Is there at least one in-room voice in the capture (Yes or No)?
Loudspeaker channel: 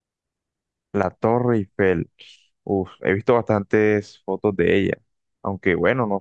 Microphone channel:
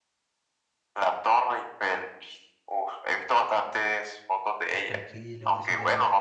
Yes